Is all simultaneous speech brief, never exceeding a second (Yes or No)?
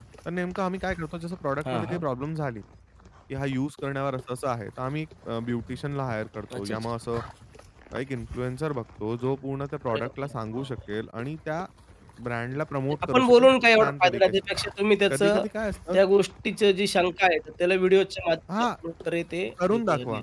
No